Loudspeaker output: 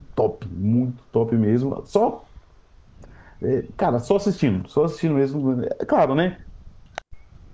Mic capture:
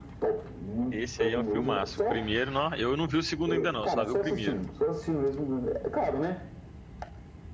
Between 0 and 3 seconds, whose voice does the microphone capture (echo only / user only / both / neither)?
both